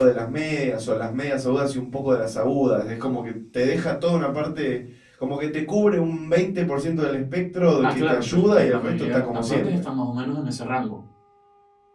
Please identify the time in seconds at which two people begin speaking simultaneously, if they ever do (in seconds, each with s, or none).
7.8 s